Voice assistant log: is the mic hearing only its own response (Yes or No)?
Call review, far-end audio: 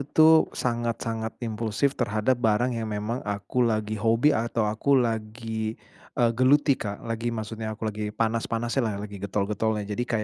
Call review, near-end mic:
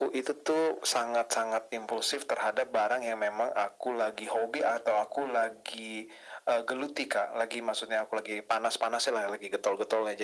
Yes